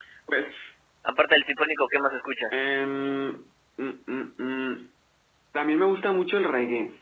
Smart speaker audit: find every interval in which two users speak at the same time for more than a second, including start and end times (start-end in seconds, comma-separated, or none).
none